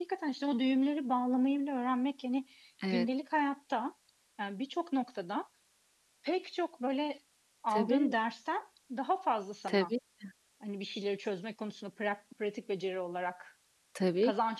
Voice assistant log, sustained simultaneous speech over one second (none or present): none